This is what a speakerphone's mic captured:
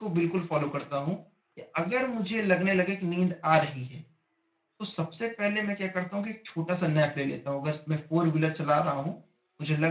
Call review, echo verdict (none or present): none